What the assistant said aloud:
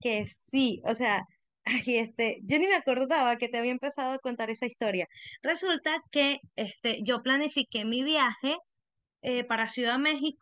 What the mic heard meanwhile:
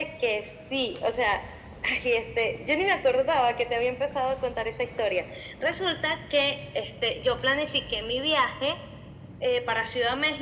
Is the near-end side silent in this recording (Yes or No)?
Yes